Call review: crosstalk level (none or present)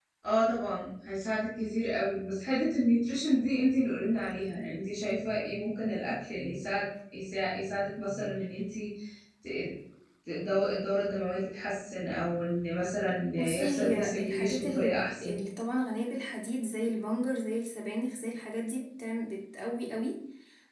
present